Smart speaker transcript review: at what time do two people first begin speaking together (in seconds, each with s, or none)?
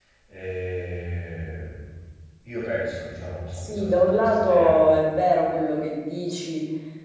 3.5 s